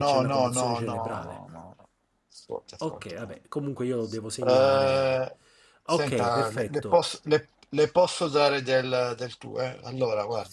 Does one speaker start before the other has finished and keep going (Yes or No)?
Yes